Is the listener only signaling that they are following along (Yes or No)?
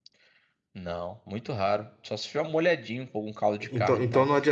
No